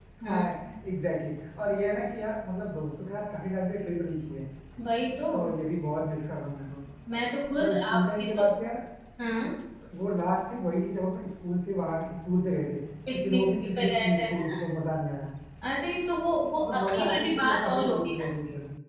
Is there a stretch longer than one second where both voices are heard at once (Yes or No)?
Yes